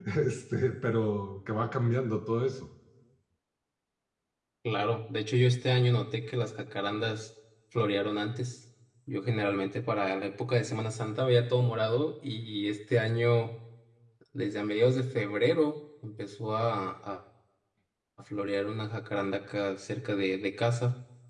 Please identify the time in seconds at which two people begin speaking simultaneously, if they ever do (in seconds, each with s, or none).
none